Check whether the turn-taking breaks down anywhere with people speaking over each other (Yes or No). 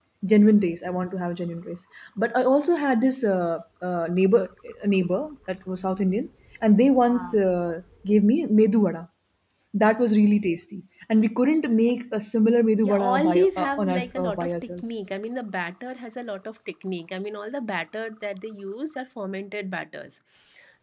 Yes